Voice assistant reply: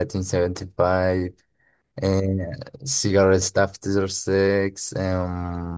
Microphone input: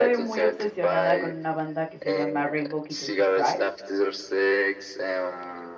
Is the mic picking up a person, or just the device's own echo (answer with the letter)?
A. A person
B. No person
A